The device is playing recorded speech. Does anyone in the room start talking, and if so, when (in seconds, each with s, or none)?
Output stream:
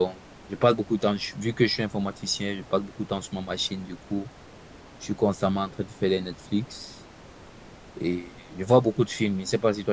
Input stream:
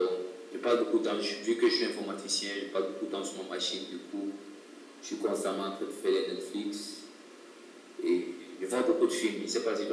none